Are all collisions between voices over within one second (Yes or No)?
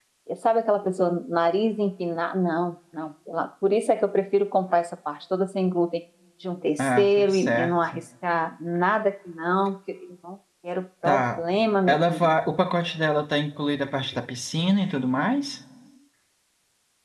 No